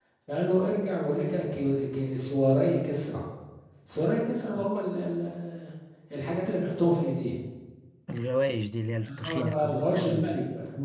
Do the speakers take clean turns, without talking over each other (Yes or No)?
No